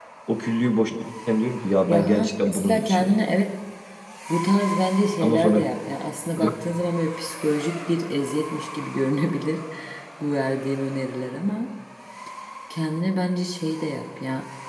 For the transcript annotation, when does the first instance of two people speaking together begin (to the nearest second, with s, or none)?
2 s